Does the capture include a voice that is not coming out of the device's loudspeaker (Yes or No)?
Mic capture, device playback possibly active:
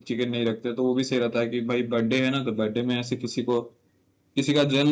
Yes